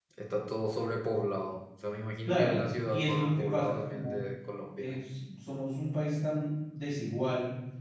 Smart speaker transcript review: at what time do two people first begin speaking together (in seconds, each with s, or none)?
2.3 s